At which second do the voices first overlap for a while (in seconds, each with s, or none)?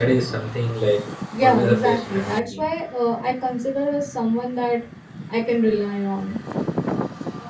1.3 s